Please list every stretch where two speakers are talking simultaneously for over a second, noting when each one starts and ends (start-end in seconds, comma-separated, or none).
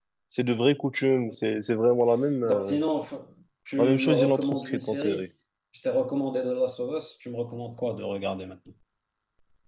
3.8-5.2